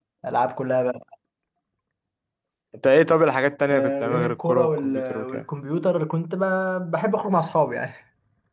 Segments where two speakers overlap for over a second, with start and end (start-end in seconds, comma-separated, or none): 3.7-5.4